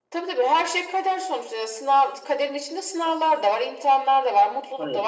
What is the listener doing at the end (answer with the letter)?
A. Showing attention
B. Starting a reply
A